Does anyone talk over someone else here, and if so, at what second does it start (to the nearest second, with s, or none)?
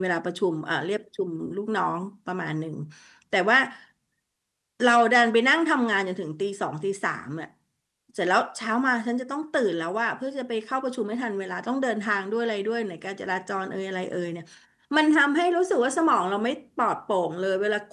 none